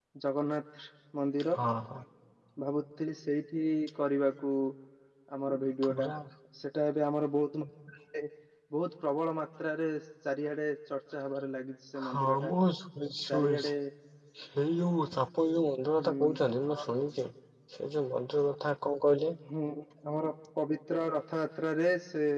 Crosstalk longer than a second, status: none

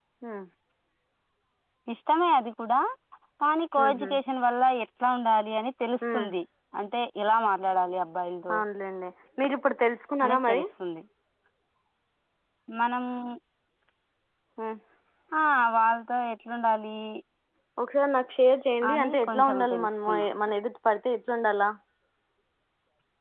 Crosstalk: present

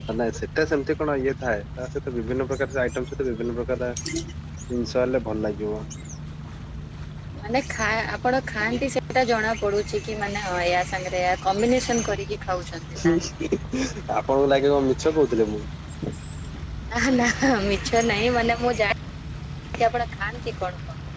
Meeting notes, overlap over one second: none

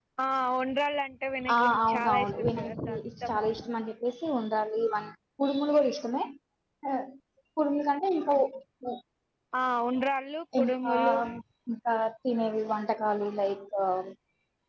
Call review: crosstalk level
present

